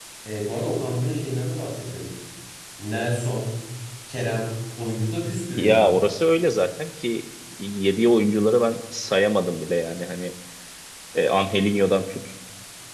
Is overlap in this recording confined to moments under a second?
Yes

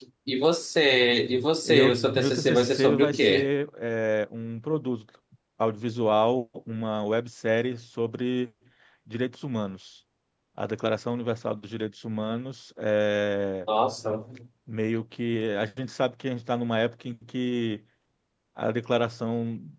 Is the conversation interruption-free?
No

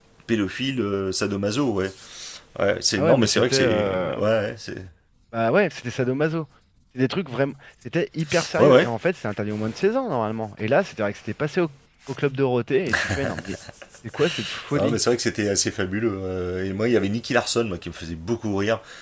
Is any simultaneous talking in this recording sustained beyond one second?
Yes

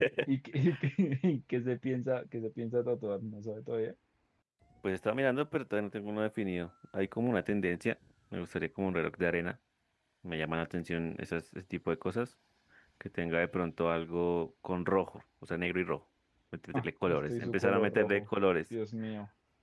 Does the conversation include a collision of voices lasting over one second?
Yes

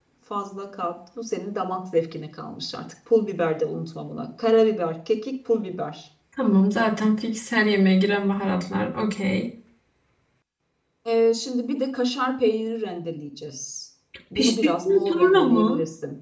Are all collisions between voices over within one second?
No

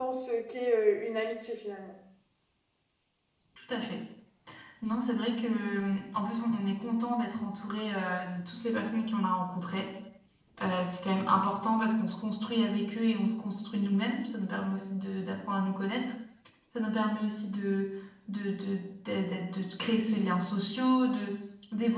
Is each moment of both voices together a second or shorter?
Yes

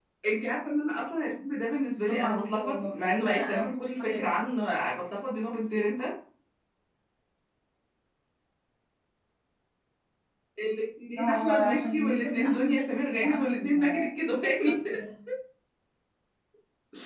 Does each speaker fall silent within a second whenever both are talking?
No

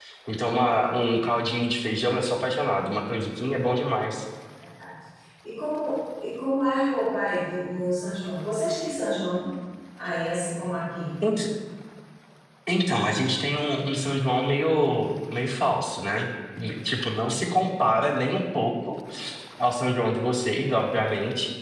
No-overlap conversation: Yes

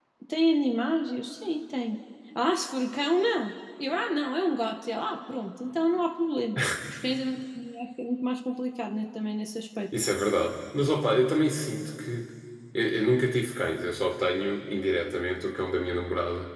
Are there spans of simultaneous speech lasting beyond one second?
No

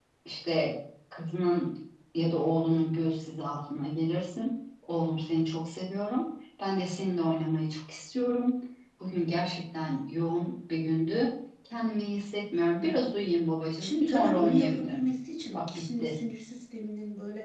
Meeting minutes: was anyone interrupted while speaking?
Yes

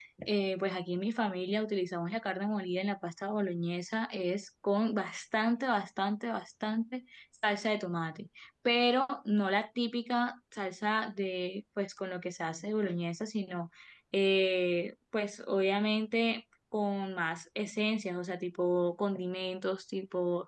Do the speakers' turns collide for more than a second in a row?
No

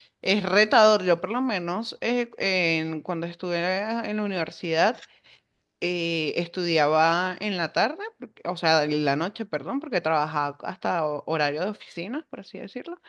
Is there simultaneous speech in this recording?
No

